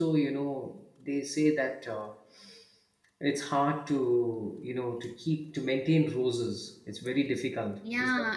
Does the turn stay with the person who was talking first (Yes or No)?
No